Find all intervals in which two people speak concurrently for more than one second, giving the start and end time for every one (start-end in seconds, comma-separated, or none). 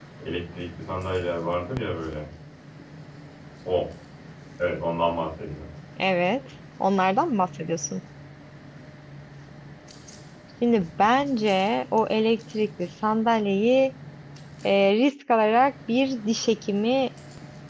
none